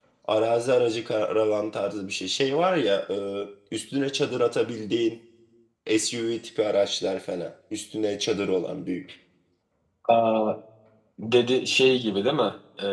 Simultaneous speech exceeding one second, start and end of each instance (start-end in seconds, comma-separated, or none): none